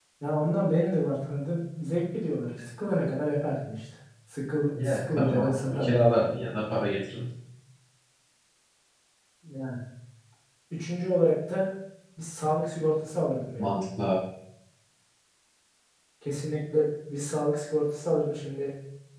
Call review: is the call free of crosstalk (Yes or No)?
No